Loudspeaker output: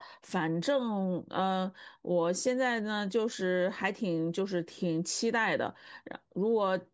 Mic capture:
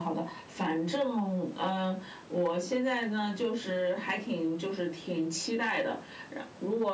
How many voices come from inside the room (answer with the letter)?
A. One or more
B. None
B